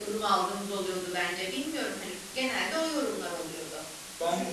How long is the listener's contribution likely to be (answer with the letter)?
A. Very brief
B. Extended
A